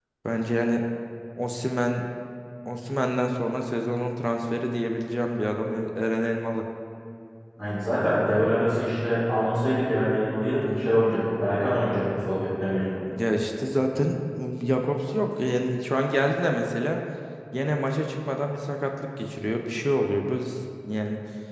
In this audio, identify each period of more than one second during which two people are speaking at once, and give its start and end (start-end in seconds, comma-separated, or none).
none